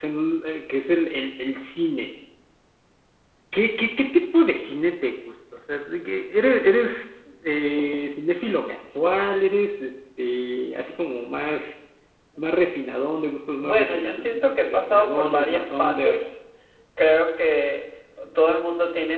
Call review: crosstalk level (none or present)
present